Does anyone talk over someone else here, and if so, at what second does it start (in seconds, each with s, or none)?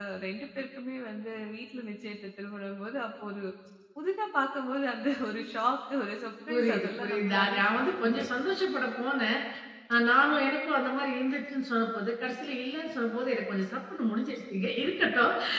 6.5 s